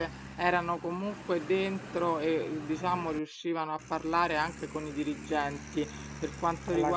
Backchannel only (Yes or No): Yes